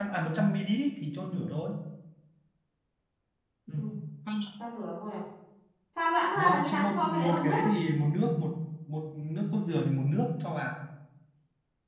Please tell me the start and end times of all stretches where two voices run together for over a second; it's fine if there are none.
6.4-7.7

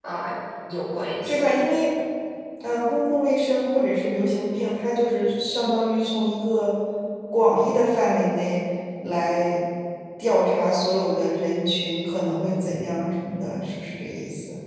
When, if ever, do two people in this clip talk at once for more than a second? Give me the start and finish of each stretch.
none

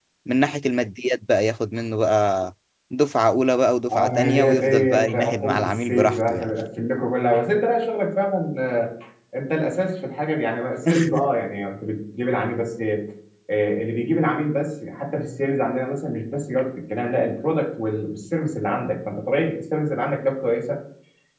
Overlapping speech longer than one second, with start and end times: 3.9-6.5

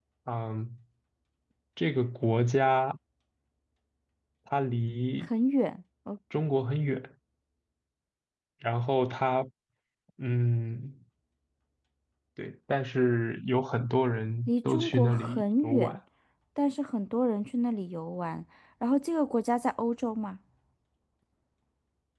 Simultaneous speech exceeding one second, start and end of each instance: 14.5-16.0

